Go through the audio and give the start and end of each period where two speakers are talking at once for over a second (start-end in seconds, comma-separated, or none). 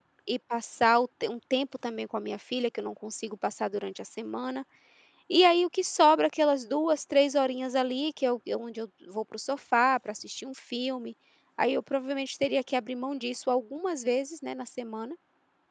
none